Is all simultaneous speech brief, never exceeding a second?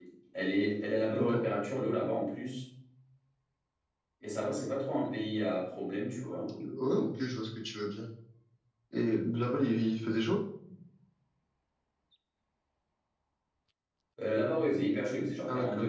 Yes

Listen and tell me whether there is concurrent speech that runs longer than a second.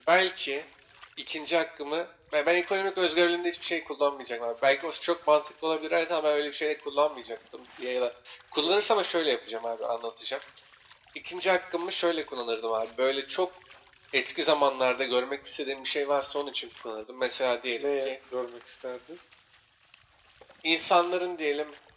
No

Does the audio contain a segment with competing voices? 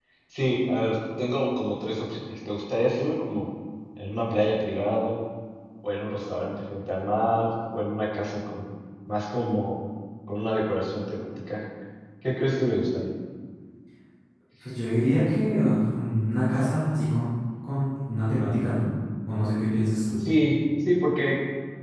No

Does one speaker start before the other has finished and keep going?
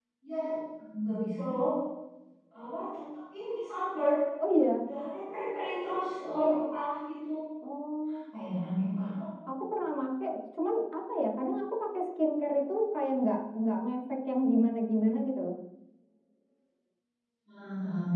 No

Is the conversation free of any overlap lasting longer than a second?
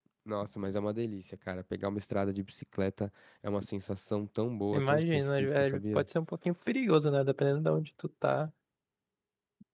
No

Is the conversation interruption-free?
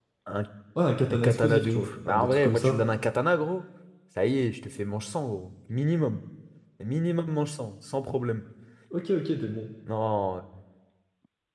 No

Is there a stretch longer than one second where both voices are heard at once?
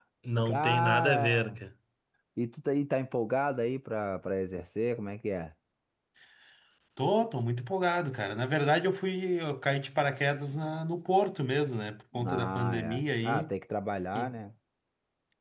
Yes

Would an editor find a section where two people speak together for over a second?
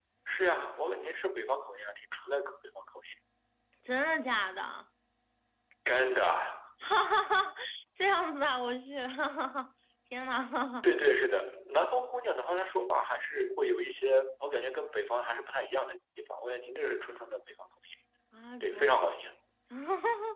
No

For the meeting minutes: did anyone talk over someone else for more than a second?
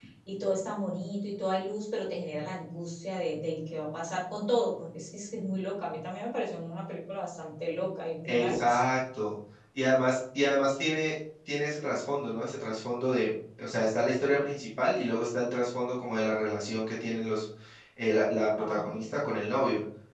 No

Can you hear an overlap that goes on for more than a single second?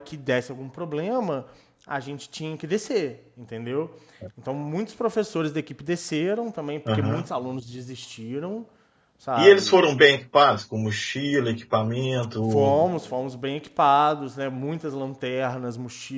No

